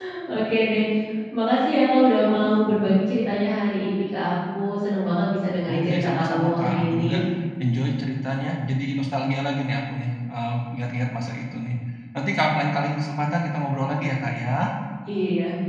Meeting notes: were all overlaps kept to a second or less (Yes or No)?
No